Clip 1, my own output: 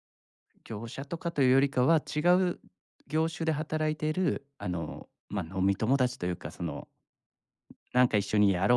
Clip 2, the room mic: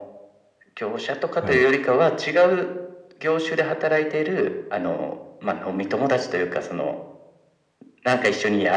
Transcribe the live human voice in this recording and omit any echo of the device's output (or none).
はい。